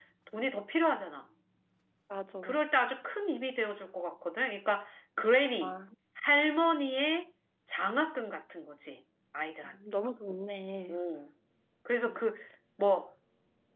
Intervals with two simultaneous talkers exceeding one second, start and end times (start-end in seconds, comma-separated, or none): none